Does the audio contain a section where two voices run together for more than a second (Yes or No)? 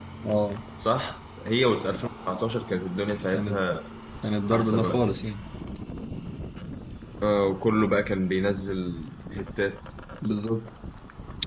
No